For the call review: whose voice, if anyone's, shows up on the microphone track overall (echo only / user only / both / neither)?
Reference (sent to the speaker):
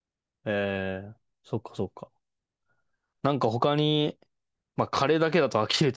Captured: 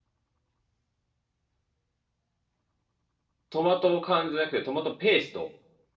user only